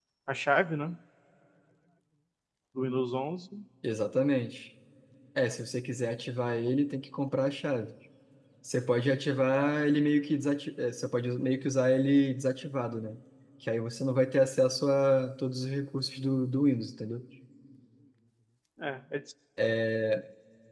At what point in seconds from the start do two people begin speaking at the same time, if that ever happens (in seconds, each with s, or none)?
none